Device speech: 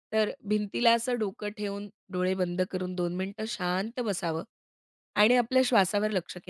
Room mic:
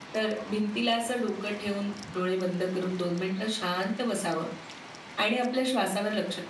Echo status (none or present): present